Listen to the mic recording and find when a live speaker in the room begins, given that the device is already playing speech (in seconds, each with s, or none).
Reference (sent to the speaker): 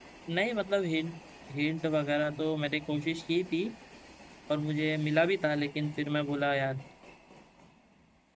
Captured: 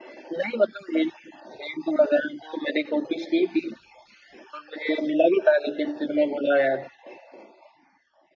none